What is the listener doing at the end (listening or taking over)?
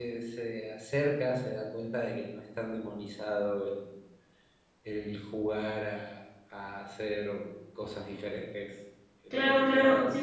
taking over